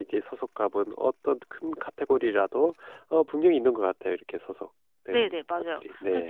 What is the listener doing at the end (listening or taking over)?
taking over